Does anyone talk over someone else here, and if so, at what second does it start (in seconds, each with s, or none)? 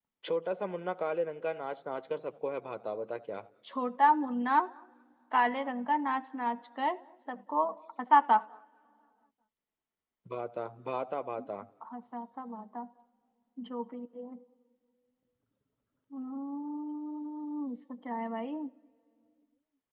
none